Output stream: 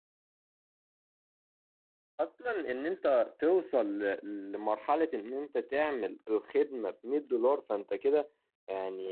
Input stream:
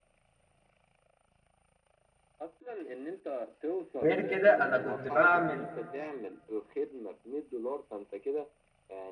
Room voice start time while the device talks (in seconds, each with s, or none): 4.0 s